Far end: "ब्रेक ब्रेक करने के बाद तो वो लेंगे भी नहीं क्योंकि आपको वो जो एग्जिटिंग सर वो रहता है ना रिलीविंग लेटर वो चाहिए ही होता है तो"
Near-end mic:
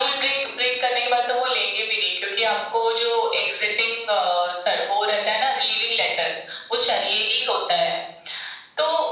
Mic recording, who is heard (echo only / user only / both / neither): echo only